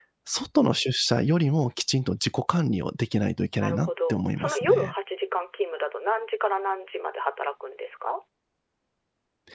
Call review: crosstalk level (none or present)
present